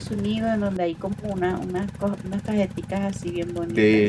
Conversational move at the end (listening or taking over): taking over